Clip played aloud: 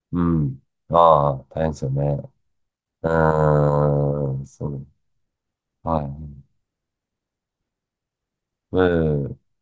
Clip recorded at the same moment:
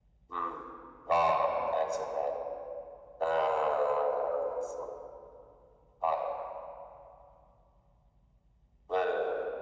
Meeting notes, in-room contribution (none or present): none